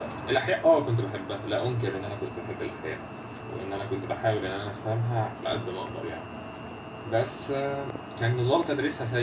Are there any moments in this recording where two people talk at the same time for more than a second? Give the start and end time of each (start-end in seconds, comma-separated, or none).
none